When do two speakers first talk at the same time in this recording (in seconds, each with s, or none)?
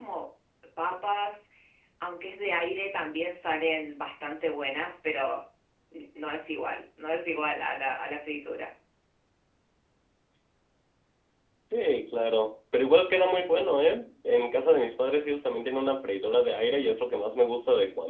none